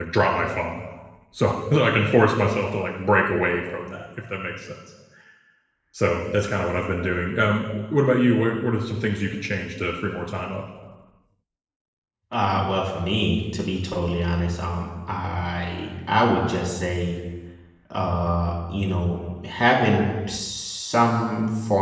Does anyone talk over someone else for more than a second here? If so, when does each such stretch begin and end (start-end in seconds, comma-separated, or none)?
none